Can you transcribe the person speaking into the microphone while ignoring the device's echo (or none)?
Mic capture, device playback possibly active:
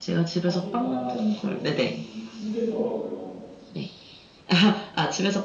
하기가 조금 힘들더라고요.